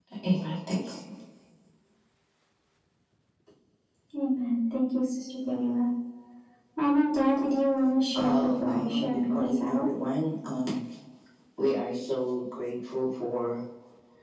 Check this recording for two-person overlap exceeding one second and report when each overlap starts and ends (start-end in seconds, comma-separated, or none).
8.2-9.8